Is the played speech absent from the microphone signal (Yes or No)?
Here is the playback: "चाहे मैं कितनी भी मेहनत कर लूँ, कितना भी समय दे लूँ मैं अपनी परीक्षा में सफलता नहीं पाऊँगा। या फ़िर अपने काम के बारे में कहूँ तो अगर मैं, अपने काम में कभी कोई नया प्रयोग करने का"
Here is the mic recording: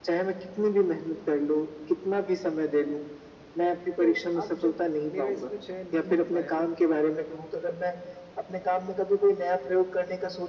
No